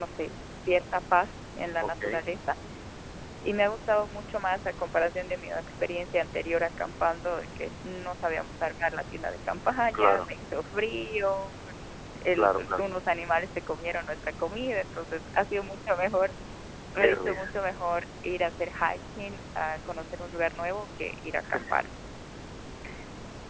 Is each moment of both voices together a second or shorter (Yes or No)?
Yes